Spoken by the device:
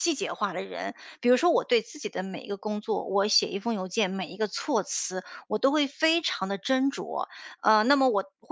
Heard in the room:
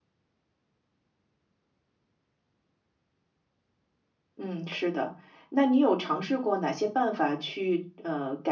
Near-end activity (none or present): present